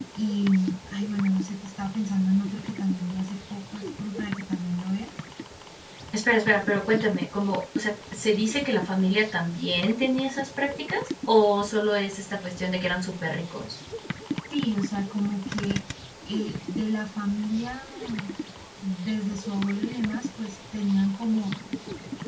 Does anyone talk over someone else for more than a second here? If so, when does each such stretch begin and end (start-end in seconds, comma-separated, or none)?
none